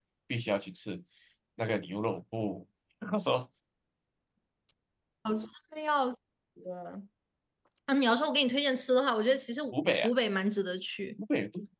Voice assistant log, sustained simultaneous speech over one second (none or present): none